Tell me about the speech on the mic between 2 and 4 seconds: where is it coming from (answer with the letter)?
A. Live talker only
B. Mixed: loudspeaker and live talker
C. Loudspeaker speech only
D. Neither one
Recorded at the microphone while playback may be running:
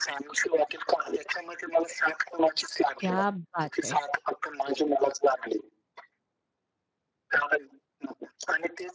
B